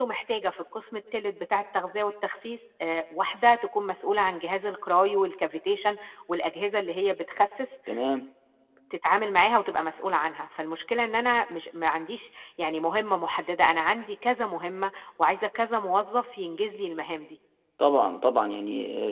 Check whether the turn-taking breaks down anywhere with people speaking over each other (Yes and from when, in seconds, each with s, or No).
No